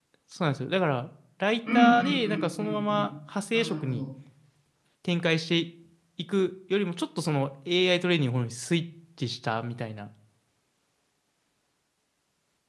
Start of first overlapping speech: 1.7 s

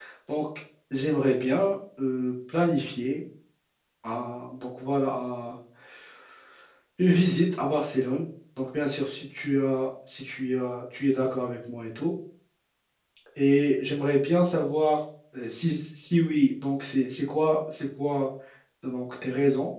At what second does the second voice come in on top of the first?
none

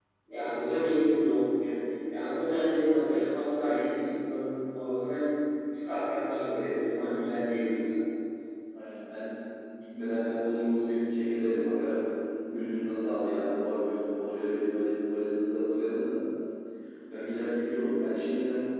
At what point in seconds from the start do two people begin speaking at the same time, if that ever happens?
none

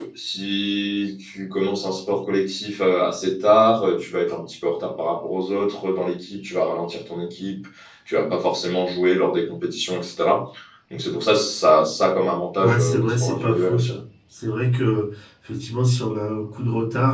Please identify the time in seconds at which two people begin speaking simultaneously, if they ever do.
12.6 s

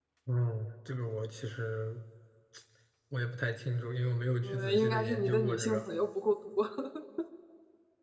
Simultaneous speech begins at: 4.4 s

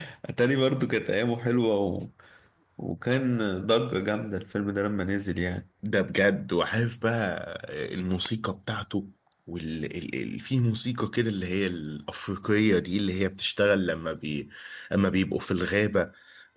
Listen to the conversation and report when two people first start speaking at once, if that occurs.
none

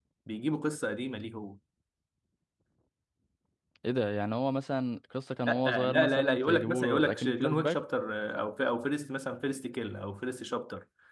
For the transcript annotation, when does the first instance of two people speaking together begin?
5.5 s

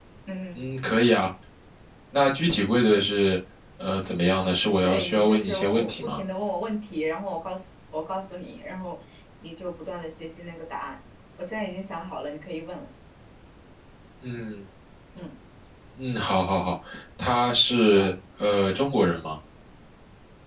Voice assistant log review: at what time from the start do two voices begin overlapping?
4.8 s

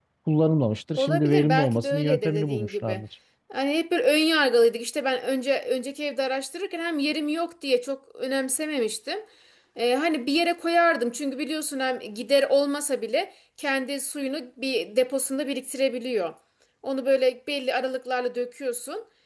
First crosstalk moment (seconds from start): 1.0 s

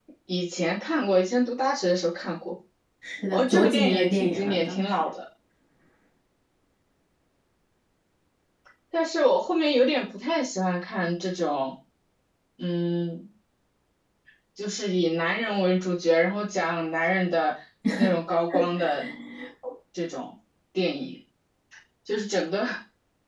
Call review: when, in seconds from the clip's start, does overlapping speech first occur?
3.3 s

